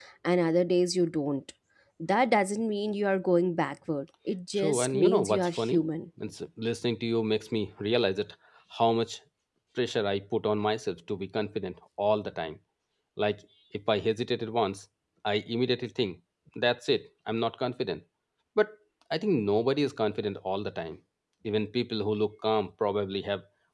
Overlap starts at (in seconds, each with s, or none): 4.5 s